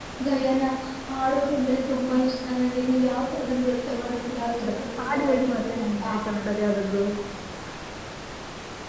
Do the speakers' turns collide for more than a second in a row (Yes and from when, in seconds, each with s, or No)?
Yes, from 4.1 s